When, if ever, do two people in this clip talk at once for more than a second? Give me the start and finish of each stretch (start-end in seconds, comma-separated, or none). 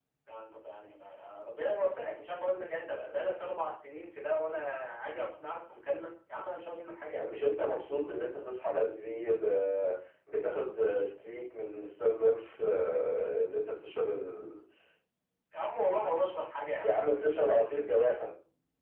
none